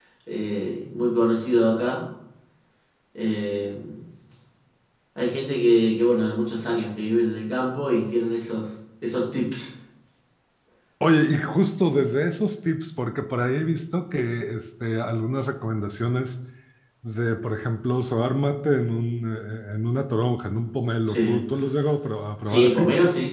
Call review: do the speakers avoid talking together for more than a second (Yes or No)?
Yes